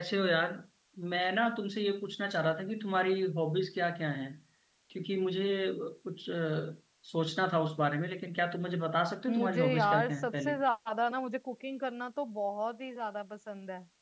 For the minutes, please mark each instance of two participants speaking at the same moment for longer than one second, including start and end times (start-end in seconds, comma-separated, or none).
9.3-10.5